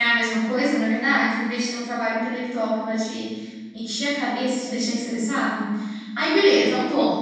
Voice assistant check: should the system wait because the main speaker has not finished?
Yes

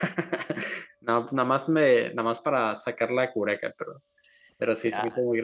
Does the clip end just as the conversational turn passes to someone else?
Yes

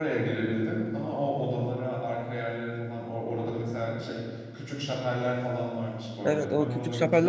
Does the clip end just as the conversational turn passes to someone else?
Yes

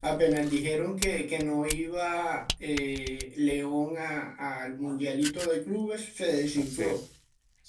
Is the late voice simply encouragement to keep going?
No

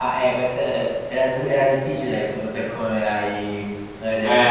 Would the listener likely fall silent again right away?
No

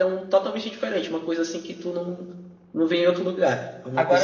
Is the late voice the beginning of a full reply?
Yes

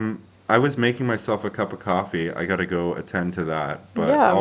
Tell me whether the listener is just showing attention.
Yes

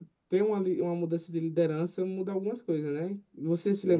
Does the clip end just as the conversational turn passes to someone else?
Yes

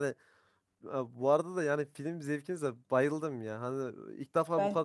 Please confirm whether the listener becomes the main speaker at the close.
No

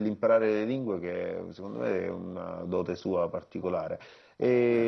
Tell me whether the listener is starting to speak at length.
No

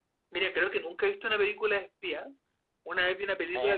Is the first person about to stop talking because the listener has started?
No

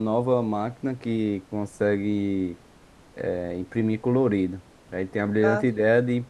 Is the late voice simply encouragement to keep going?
Yes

